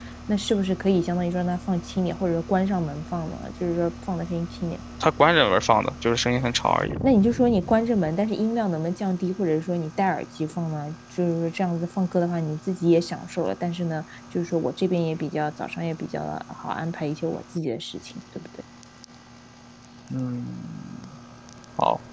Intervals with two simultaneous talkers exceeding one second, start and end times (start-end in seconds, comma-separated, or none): none